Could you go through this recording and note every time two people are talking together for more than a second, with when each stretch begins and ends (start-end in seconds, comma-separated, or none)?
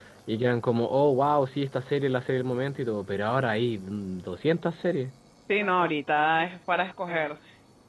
none